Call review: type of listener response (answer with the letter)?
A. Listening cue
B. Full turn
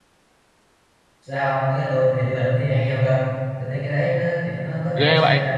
A